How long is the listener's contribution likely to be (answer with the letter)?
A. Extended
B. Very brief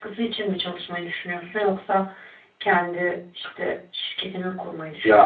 A